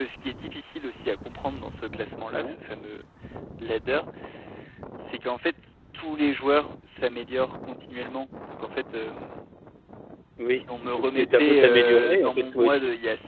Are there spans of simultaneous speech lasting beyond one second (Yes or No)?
Yes